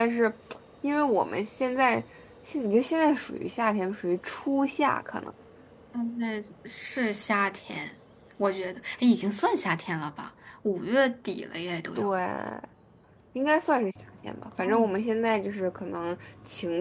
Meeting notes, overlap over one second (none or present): none